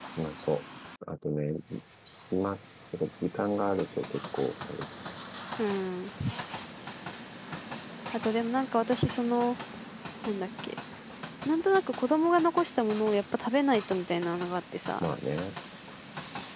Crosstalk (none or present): none